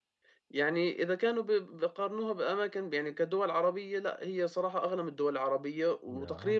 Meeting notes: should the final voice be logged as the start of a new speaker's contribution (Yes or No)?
No